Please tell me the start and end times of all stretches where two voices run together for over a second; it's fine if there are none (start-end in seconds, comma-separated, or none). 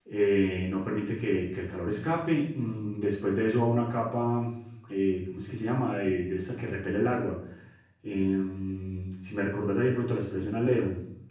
none